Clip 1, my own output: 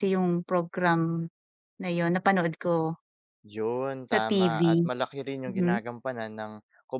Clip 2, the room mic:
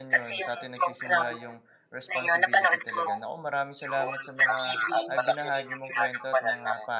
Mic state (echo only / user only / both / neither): both